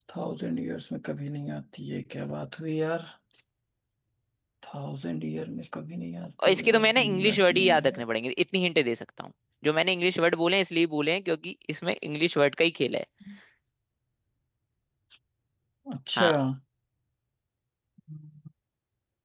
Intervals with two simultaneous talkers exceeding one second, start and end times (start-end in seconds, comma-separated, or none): 6.4-8.0